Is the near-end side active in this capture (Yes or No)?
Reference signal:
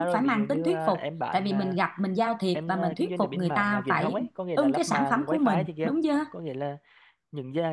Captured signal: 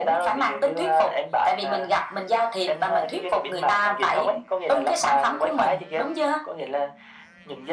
No